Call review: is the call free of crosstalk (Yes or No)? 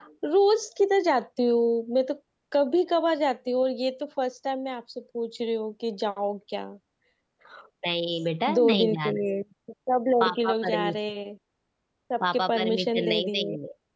No